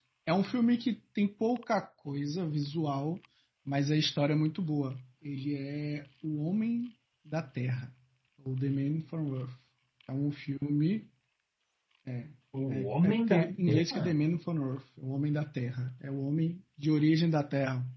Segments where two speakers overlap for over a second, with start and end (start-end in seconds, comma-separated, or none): 12.7-14.2